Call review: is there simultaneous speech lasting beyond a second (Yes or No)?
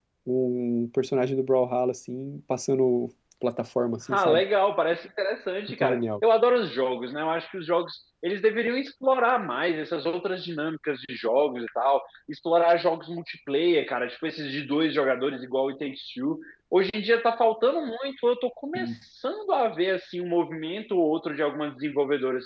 No